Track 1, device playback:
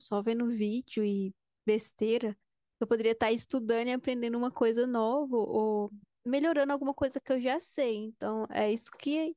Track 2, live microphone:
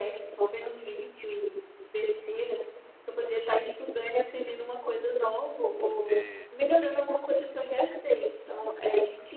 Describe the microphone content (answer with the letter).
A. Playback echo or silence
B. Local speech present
B